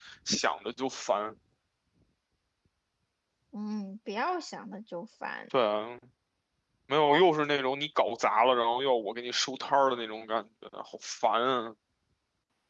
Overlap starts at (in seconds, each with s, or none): none